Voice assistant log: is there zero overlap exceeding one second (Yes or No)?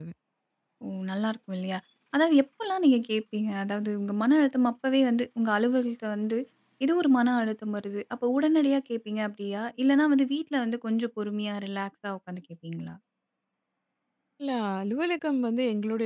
Yes